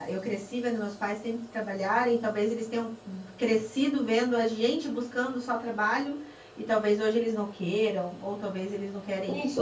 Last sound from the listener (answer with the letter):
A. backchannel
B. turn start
B